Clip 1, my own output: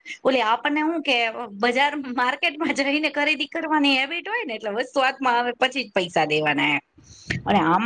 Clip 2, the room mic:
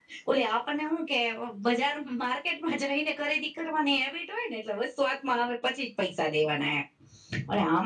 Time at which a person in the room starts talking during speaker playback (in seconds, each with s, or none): none